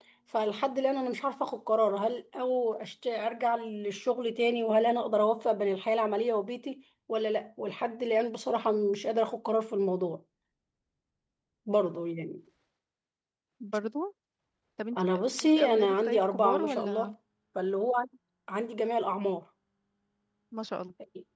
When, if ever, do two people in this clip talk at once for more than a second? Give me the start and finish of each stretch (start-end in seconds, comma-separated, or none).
15.6-17.1